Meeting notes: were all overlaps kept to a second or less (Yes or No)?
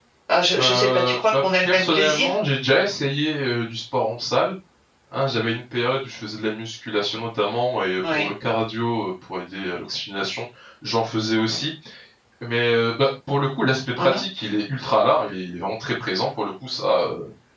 No